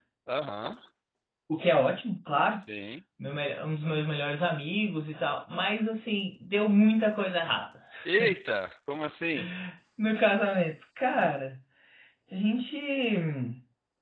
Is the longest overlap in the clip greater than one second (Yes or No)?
No